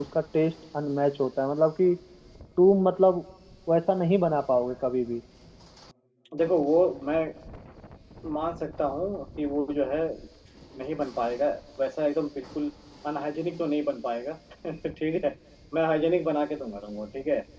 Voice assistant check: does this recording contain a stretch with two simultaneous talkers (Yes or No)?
No